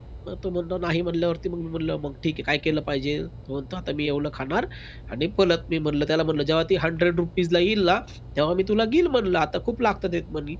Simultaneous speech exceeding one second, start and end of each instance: none

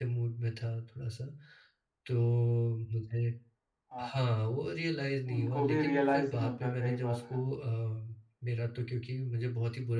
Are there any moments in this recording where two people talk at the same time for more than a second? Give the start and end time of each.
5.3-7.4

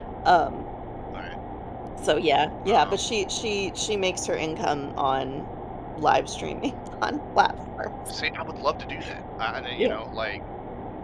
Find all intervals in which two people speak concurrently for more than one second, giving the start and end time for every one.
none

